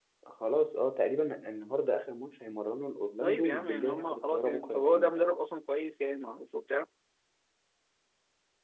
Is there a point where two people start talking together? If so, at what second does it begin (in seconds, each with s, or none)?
3.2 s